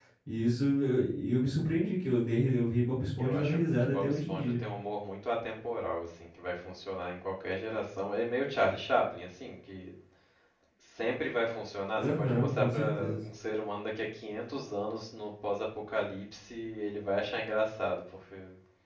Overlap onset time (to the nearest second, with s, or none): 3 s